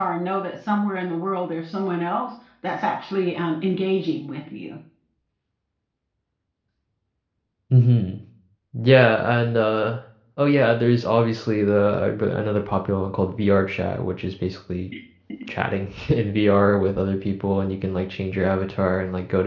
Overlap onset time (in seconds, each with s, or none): none